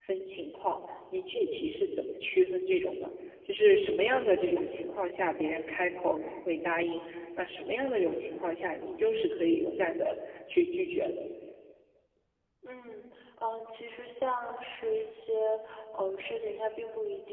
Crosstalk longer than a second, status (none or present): none